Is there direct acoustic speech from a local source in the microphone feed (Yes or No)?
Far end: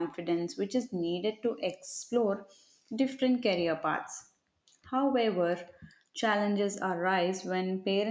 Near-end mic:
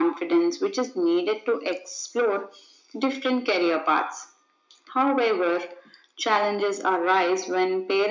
No